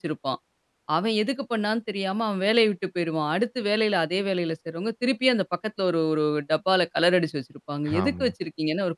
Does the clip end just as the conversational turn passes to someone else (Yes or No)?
No